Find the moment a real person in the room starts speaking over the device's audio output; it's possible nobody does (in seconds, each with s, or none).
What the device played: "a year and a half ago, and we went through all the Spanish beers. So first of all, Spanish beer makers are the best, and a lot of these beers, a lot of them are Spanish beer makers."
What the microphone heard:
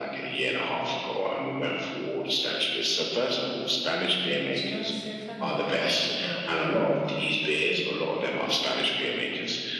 4.5 s